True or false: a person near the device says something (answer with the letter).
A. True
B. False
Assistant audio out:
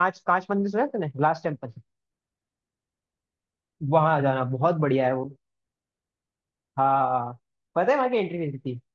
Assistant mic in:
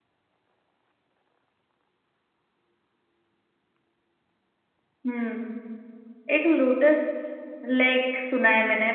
A